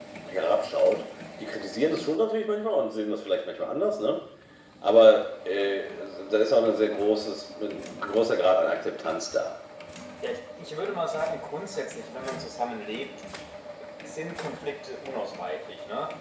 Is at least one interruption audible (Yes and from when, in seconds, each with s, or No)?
No